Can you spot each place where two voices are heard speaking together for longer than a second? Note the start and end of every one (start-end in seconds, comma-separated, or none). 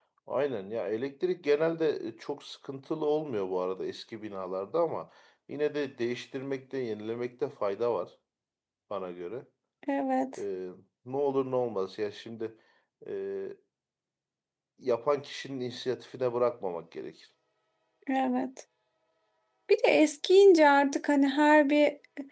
none